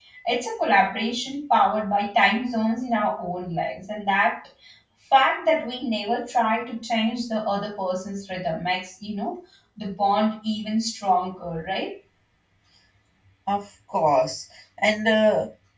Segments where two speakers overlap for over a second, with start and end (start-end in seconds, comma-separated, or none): none